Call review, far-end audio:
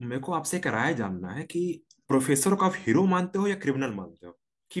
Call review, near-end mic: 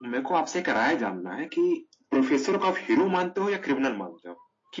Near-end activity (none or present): none